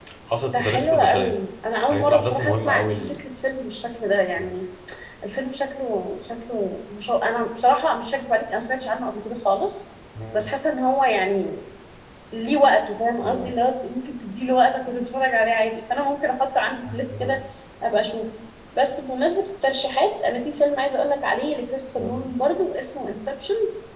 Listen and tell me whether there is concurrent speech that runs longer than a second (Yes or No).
Yes